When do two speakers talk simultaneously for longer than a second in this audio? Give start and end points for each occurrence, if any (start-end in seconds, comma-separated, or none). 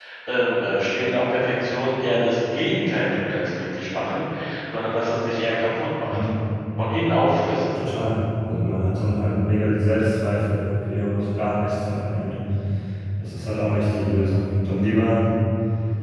none